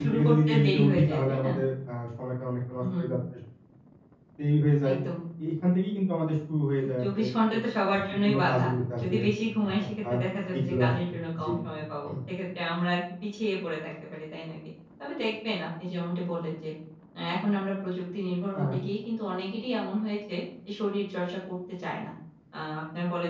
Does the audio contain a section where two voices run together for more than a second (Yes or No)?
Yes